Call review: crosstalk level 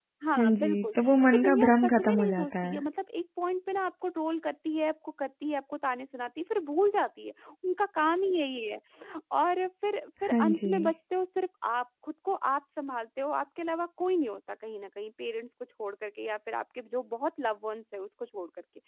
present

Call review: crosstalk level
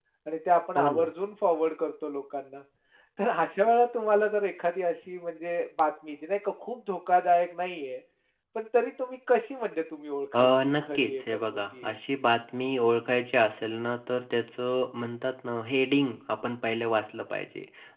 present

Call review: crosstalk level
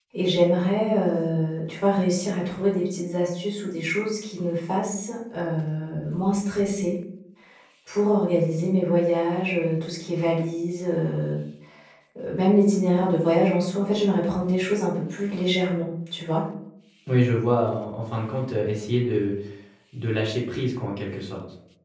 none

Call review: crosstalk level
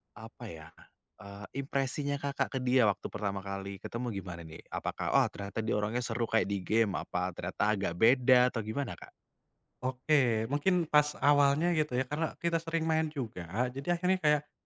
none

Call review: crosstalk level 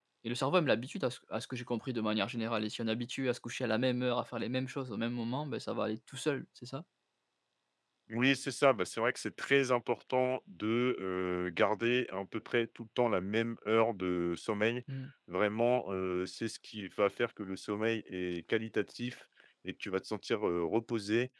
none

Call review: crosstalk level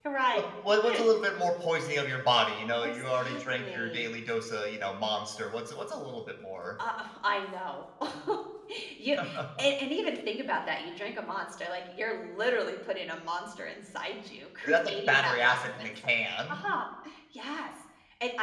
present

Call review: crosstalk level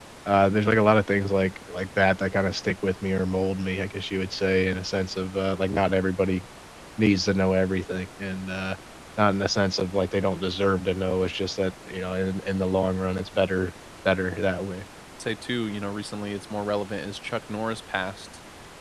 none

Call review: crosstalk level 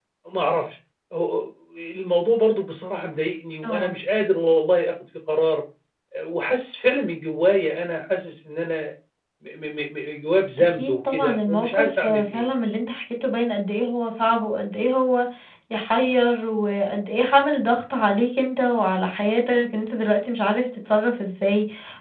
present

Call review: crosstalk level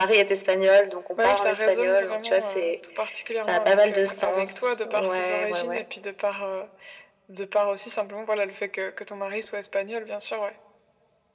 present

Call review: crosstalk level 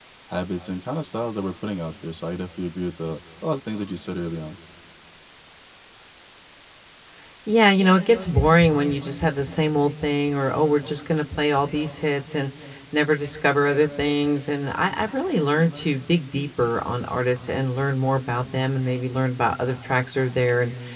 none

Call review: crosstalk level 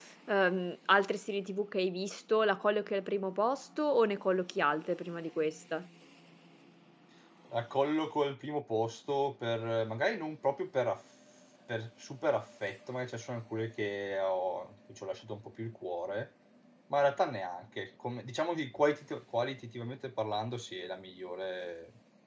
none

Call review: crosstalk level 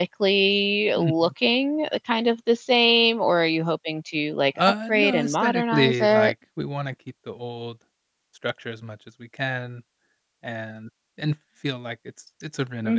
present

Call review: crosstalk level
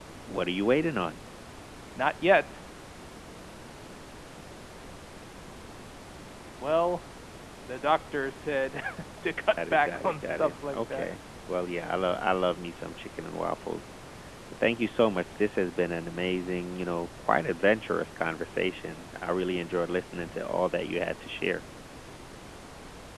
present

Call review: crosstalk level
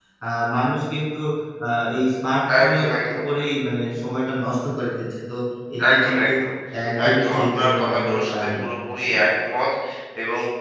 present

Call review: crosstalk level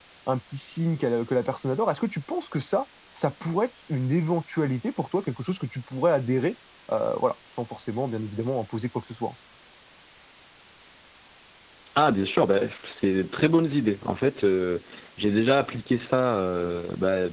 none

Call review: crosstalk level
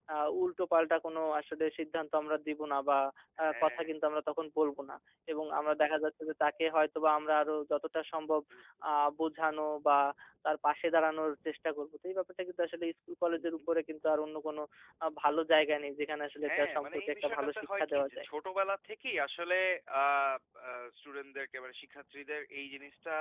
present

